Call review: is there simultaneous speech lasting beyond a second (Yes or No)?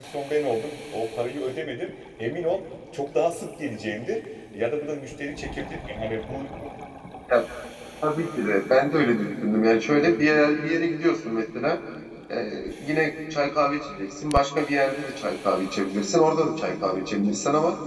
No